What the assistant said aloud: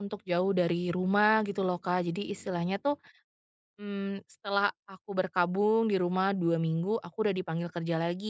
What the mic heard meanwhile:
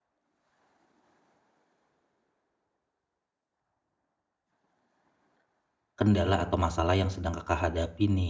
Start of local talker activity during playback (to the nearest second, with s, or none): 6 s